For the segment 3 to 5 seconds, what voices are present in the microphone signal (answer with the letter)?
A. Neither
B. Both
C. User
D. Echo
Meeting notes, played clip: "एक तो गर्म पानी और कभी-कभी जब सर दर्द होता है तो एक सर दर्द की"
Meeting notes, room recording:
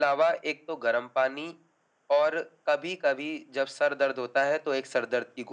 D